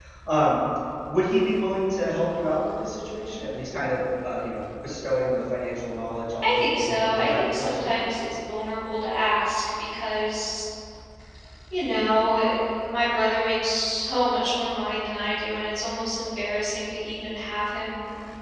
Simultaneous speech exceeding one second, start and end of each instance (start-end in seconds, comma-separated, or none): 6.4-7.9